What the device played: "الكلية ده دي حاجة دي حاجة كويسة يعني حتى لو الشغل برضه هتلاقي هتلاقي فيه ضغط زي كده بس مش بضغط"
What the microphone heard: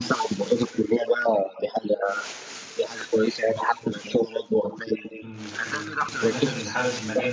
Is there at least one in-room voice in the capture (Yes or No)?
Yes